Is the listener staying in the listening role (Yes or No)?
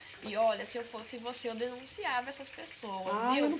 No